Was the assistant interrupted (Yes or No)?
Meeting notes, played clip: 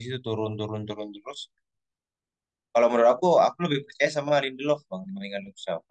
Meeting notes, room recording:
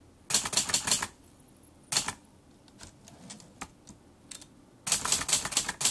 No